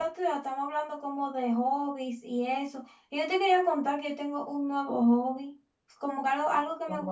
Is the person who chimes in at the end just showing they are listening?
Yes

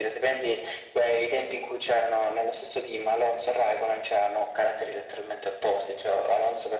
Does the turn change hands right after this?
No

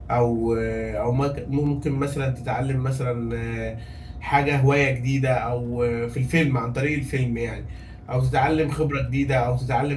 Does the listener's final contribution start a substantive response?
No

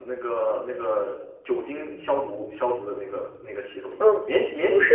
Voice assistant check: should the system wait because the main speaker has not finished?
No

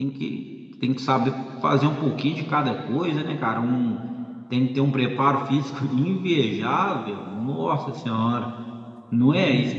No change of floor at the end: No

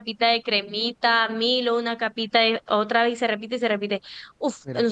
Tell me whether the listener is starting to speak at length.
No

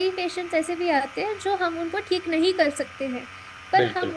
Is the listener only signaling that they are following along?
Yes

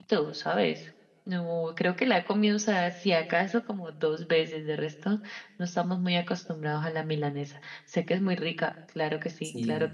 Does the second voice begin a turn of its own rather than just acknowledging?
Yes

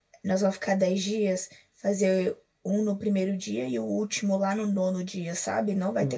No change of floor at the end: No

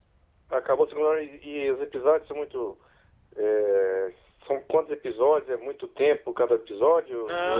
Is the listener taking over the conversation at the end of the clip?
Yes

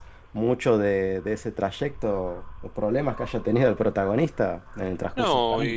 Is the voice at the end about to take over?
Yes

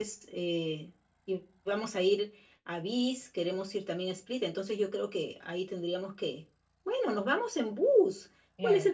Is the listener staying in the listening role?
Yes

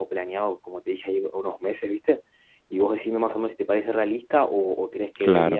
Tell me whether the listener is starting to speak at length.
No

